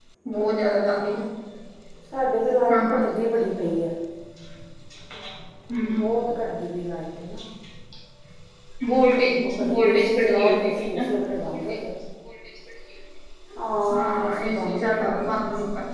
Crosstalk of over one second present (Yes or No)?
Yes